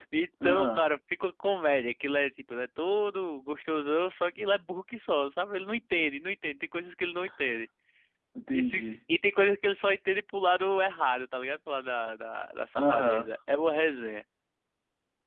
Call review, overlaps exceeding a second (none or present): none